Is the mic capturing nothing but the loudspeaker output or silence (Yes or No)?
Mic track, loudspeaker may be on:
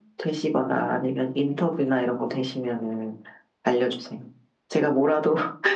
Yes